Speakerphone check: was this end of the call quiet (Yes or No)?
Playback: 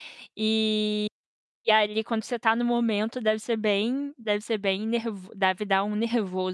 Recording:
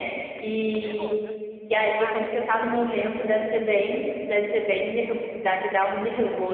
No